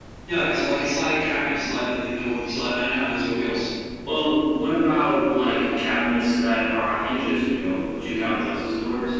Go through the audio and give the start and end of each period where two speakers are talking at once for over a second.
none

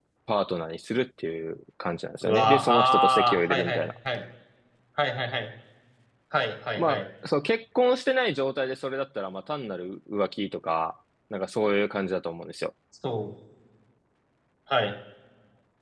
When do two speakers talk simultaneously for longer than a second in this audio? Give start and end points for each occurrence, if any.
2.2-3.9

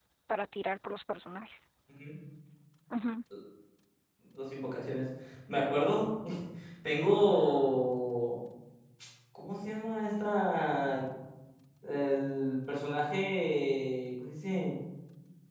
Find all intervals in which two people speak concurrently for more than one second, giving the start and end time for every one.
none

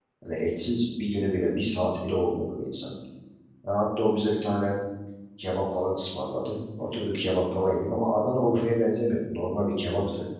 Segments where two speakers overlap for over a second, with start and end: none

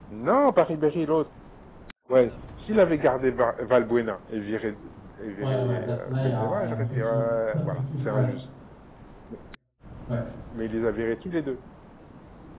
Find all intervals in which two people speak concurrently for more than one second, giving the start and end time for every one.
5.4-8.3

